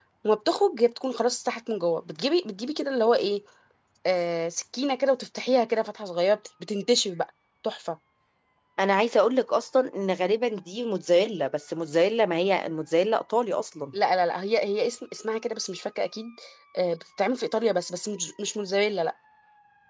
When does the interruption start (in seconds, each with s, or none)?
none